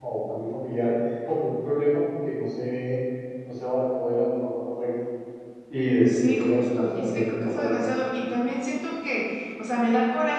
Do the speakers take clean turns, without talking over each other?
No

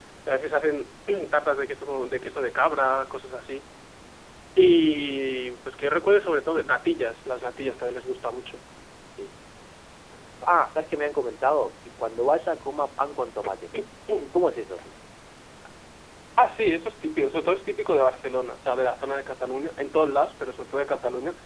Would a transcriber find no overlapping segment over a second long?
Yes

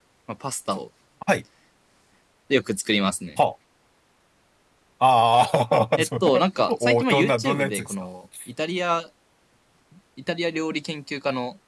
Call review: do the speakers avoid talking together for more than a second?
No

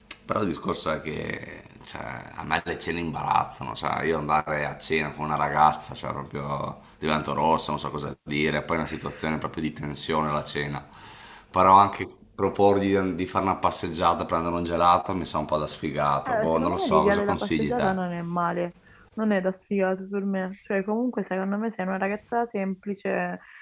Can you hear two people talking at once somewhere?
Yes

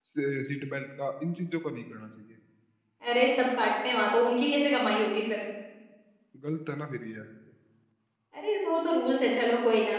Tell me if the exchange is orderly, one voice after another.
Yes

